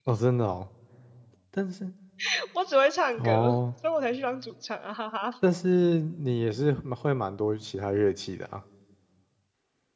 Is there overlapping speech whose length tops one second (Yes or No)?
No